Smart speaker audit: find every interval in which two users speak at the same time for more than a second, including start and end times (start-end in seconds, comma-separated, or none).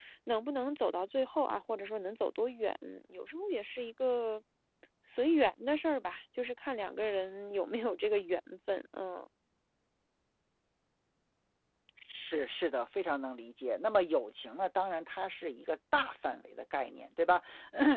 none